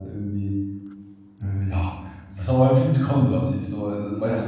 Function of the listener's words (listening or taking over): listening